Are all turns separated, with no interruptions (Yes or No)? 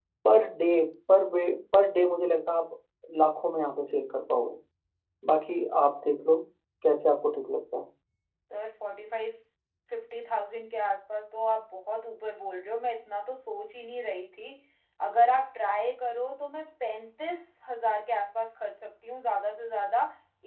Yes